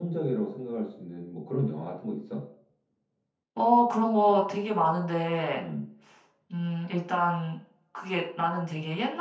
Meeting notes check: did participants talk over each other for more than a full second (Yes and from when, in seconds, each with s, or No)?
No